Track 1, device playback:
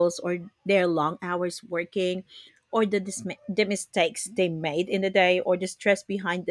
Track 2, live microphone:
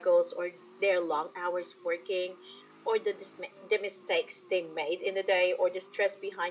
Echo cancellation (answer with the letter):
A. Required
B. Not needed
A